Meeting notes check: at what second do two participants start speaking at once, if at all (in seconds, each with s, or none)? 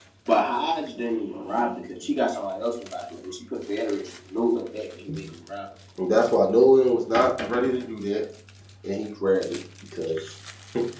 none